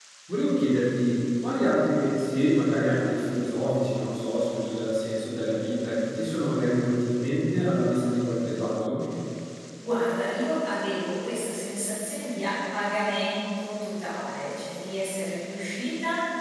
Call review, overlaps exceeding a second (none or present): none